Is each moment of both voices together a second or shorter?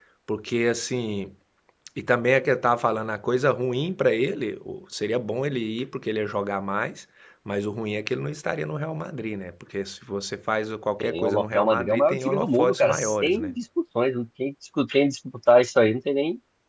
No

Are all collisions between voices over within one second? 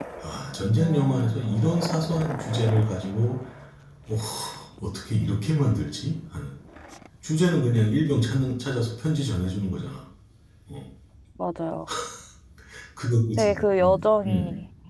No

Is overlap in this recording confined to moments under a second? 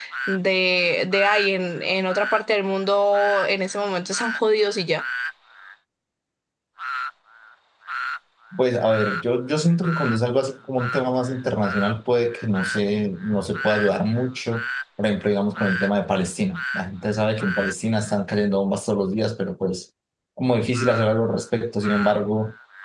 Yes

